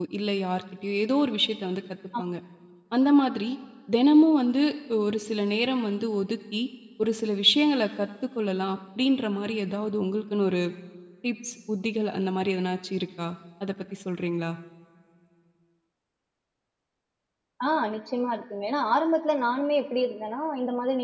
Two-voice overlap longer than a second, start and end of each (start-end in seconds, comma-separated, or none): none